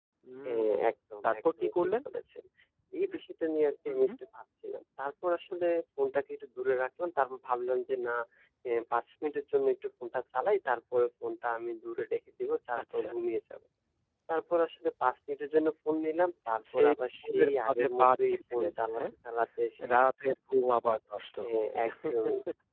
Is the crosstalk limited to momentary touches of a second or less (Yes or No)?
No